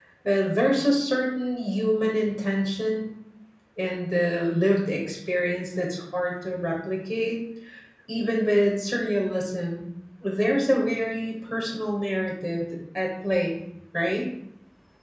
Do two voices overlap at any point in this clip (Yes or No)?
No